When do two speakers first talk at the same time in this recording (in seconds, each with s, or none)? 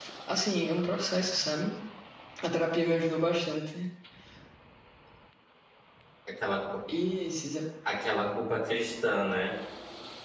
none